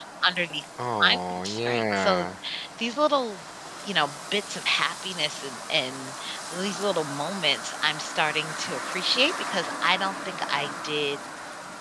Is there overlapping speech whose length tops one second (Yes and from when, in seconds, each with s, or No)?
Yes, from 1.0 s